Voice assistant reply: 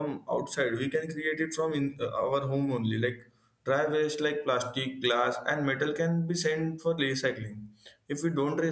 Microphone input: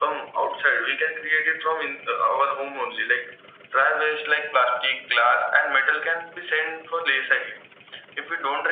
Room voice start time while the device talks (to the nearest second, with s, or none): none